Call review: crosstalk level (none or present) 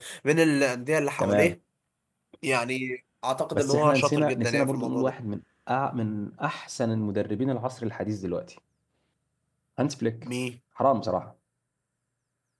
present